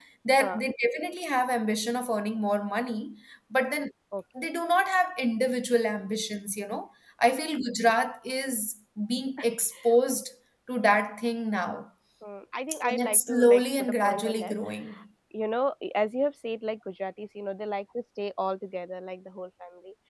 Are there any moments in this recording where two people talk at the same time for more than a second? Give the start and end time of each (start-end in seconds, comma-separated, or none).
12.8-14.5